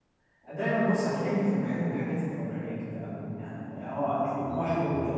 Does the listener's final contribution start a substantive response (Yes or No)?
No